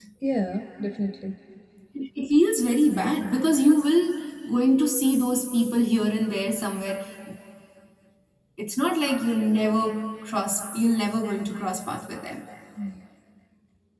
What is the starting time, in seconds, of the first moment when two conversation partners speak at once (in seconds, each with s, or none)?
none